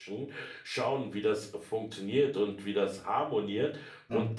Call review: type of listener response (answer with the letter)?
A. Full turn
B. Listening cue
B